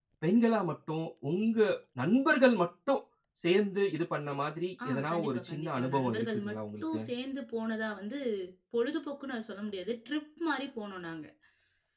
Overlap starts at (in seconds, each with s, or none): 4.8 s